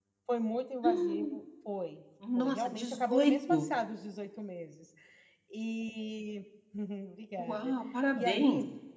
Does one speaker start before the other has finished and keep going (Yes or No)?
Yes